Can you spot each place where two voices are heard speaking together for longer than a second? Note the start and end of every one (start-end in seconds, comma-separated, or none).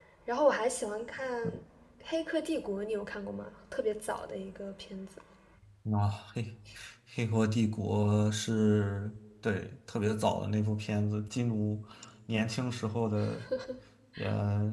none